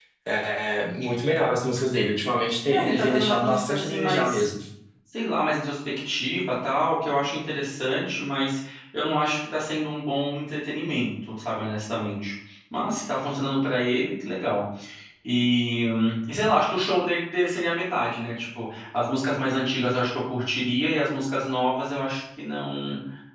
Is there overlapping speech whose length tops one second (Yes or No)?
Yes